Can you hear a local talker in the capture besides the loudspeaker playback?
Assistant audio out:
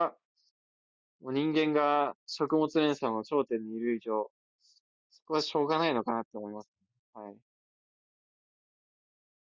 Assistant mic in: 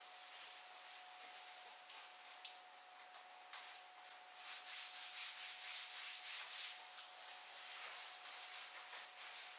No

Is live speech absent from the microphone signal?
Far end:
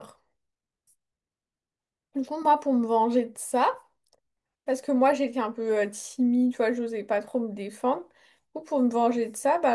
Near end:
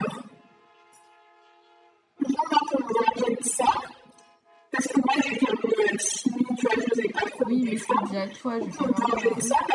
No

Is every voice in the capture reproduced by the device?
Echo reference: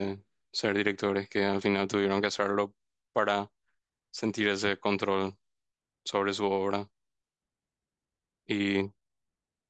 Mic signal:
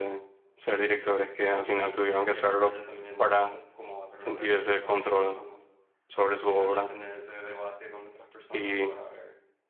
No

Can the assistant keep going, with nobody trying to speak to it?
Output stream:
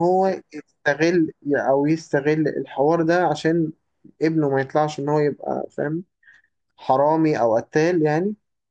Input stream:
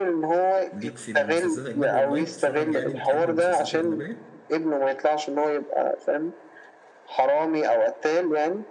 No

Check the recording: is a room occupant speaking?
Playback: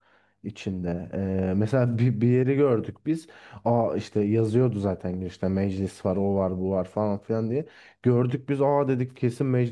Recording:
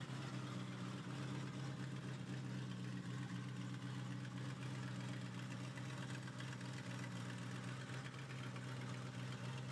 No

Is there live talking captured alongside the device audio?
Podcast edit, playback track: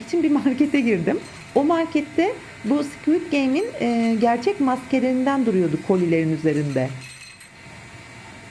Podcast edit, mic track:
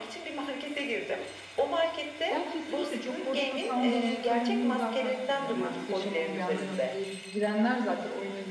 Yes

